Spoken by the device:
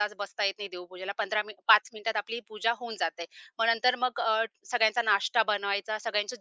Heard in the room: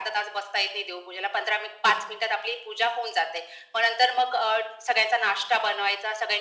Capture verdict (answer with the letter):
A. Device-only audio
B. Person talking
A